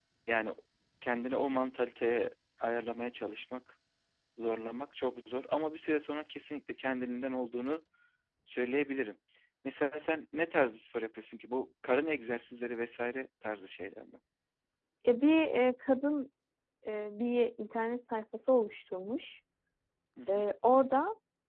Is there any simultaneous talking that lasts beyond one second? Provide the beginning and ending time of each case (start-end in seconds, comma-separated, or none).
none